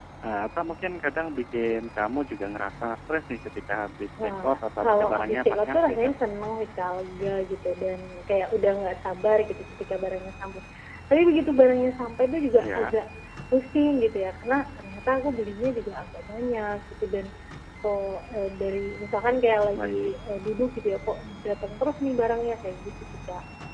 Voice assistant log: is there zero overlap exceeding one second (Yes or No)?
No